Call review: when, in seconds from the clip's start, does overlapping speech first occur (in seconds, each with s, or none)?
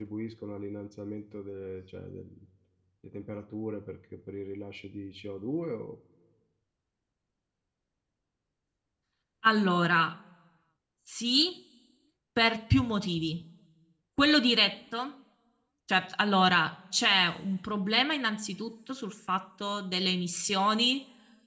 none